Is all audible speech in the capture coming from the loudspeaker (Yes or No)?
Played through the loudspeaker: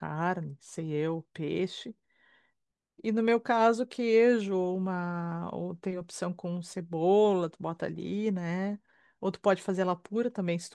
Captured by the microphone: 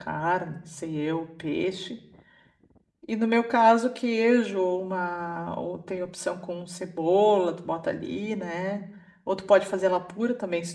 Yes